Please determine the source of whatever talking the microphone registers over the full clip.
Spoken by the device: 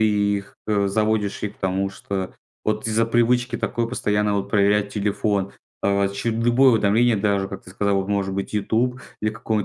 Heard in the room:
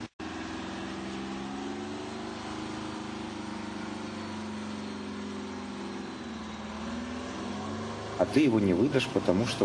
user only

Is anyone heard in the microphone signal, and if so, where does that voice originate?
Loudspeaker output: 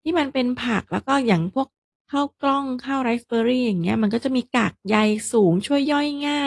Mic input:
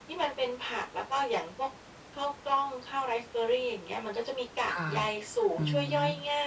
both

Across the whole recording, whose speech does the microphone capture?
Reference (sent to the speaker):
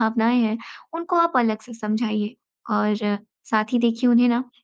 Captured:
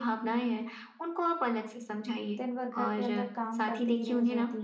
both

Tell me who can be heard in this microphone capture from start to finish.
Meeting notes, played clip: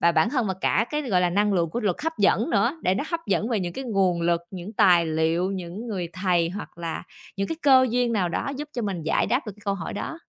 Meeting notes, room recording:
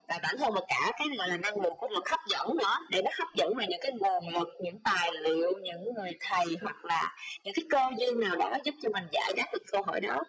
echo only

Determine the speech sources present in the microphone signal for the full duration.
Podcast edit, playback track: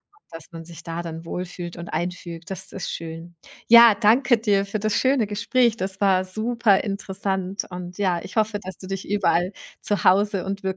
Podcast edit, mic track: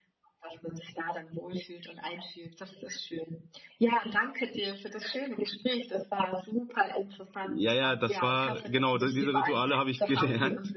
both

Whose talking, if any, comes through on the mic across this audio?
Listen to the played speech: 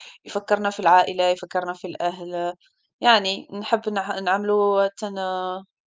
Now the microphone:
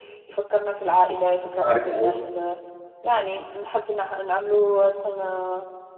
both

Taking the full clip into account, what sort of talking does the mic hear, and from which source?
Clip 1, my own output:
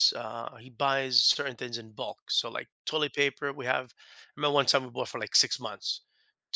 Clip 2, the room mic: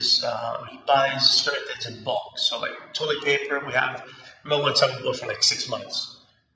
echo only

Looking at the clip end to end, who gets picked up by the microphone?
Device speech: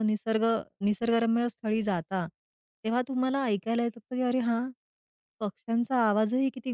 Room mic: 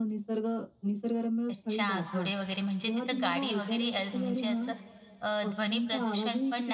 both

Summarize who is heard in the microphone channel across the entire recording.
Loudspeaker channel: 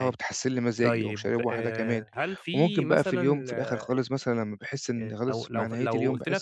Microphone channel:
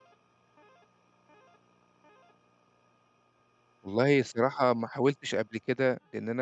user only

